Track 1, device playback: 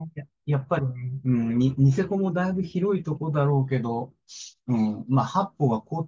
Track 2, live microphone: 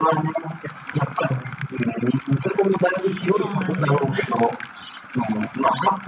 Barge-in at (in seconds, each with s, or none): 3.0 s